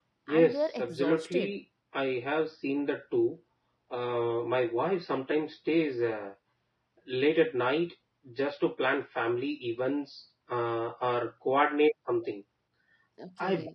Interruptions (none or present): present